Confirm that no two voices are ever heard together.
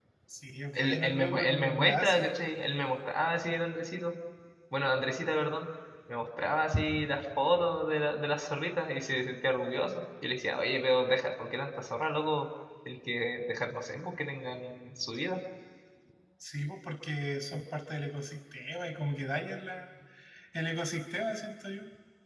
No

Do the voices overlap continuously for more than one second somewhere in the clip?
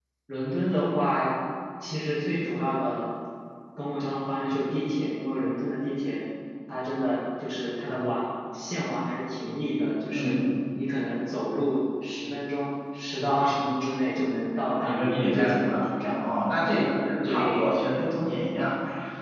Yes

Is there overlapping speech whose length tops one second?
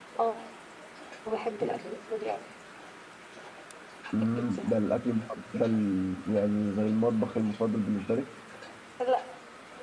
No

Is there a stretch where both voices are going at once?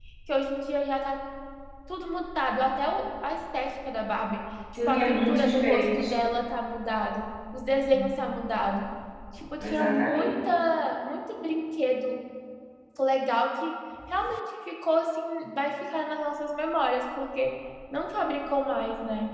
Yes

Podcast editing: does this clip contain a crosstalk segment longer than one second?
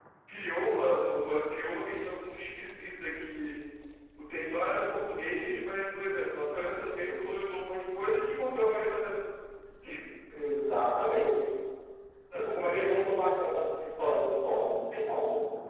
No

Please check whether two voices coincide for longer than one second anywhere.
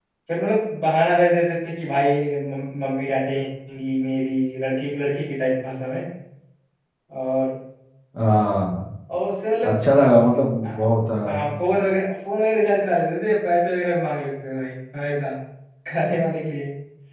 No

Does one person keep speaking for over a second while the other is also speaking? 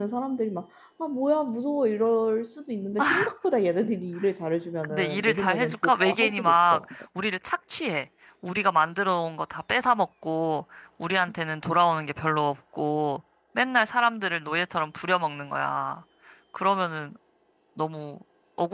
Yes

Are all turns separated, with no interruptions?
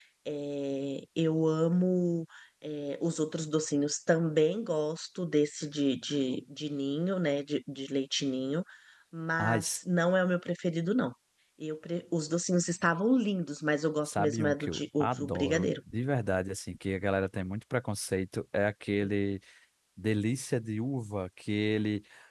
No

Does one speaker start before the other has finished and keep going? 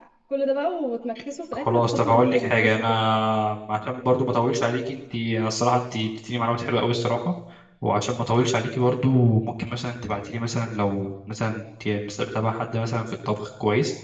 Yes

